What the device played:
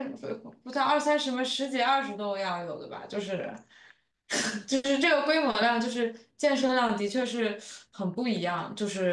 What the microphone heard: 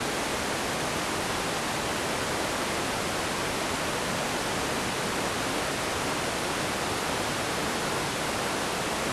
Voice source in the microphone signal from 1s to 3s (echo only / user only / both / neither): neither